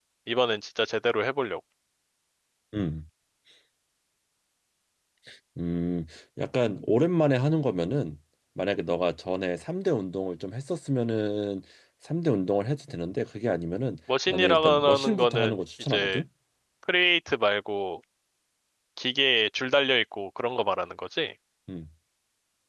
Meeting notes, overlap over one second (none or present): present